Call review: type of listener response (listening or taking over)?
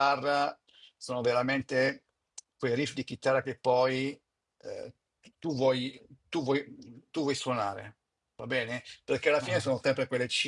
listening